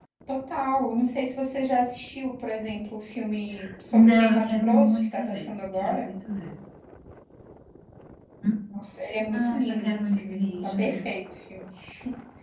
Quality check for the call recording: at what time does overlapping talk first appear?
3.9 s

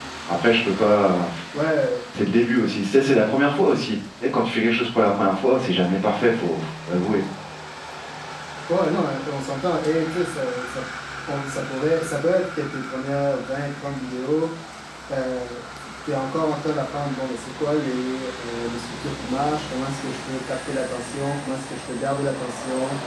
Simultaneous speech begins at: none

